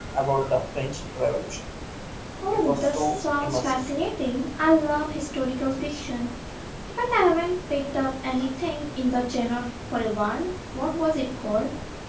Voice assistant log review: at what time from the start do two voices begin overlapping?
2.5 s

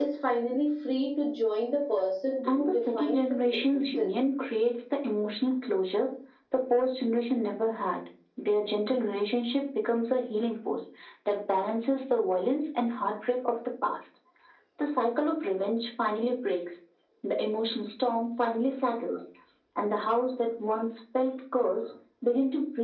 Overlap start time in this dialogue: 2.4 s

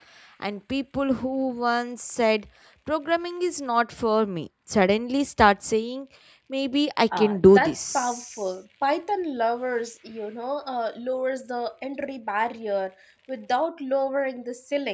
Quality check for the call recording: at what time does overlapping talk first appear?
7.2 s

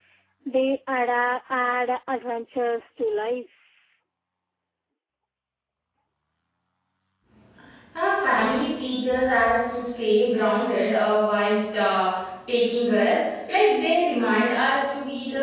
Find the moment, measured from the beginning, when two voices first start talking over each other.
none

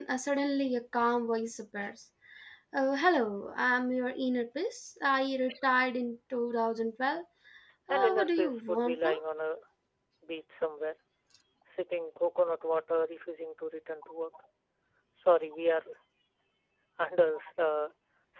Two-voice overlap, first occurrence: 7.9 s

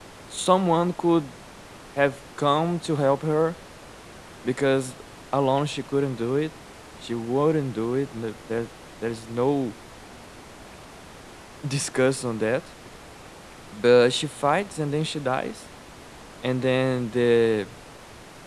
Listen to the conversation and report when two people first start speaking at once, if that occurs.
none

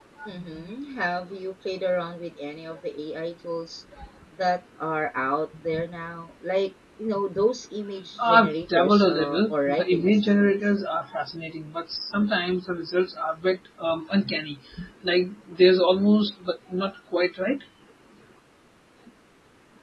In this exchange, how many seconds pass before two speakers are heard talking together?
8.2 s

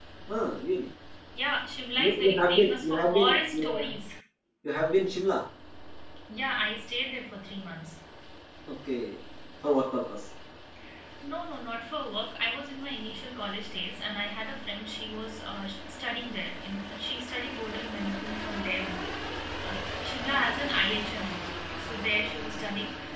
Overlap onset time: 2.0 s

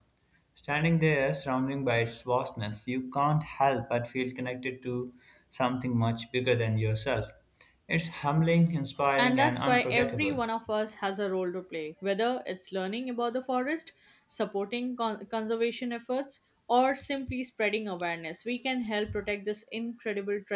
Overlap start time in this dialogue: 9.2 s

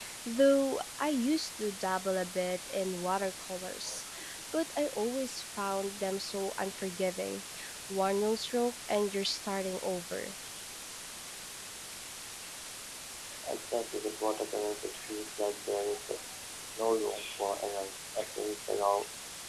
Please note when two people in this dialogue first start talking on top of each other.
none

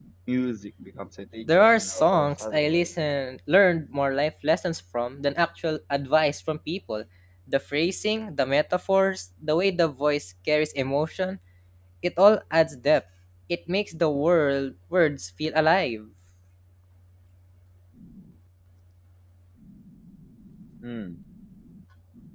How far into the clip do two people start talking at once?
1.4 s

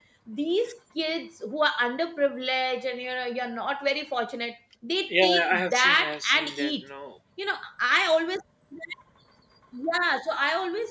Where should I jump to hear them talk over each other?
5.1 s

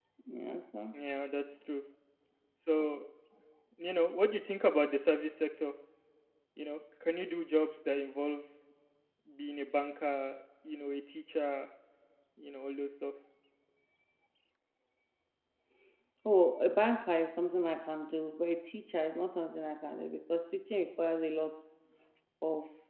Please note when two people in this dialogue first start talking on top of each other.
none

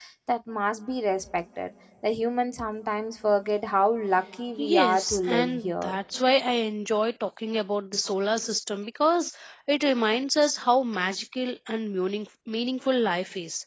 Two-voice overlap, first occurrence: 4.6 s

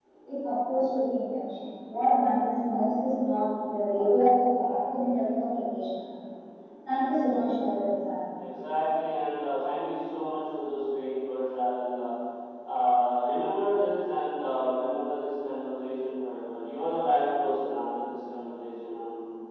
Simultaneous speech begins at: none

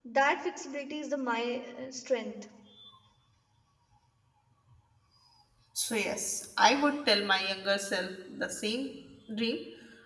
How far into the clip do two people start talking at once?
none

